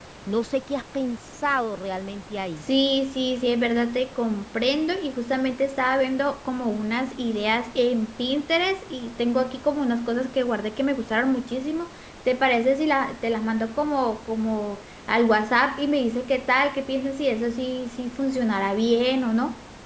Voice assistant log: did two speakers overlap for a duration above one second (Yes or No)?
No